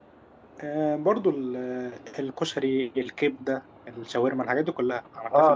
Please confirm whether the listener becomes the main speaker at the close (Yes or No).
Yes